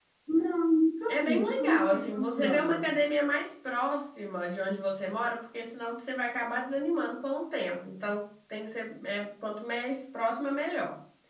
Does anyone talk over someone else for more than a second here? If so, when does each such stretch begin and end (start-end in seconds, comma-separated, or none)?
1.1-2.9